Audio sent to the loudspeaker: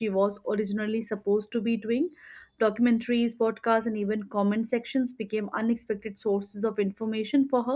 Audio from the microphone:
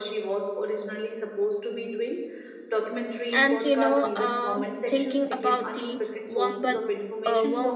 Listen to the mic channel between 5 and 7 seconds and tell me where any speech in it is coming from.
both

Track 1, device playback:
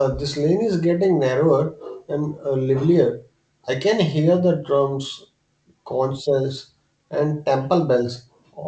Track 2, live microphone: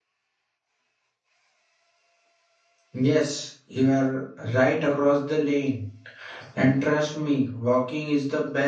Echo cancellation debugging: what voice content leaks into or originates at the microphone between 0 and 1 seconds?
neither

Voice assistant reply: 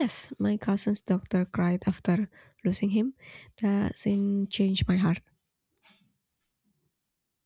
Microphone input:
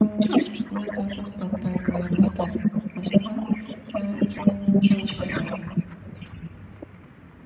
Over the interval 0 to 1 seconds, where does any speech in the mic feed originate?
echo only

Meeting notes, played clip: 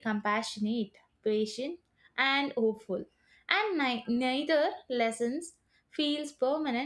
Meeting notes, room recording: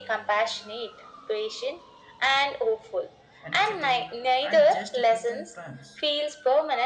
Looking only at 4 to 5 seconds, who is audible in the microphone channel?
both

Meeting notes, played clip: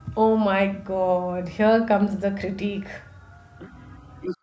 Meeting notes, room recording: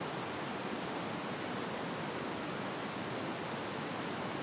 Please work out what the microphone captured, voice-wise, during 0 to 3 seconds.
neither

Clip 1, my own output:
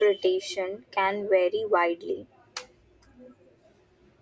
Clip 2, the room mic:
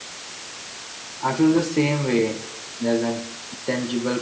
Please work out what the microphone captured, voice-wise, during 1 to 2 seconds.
user only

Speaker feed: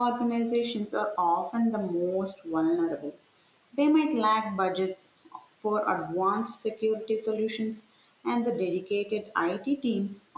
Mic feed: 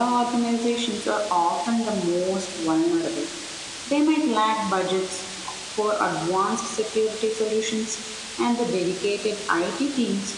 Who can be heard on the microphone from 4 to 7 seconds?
echo only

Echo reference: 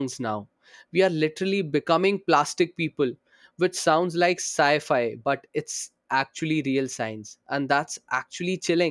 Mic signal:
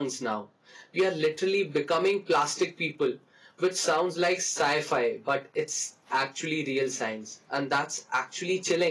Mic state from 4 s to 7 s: echo only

